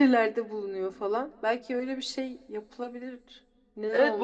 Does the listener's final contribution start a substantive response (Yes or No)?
Yes